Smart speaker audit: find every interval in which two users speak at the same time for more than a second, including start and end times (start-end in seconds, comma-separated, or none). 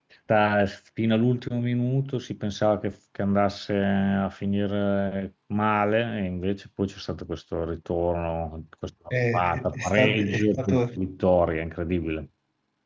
9.3-10.8